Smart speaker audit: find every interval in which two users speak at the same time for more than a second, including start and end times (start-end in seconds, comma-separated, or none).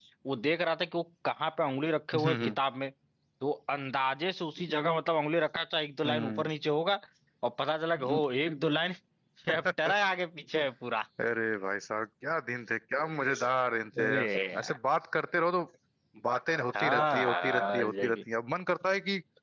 16.8-18.2